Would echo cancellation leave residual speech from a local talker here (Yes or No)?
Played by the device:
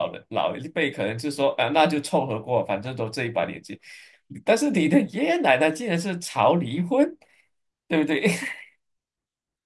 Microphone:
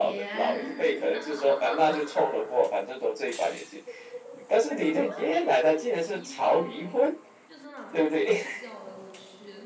Yes